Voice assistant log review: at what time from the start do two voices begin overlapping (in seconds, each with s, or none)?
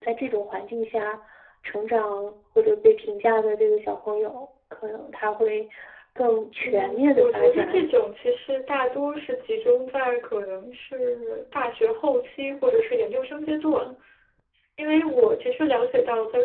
6.6 s